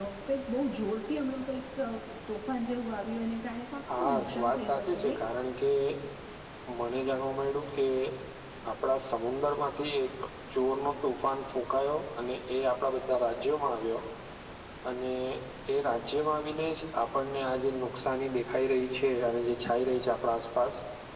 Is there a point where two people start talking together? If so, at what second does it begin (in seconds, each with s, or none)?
3.9 s